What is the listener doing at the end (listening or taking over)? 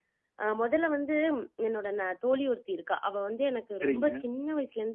listening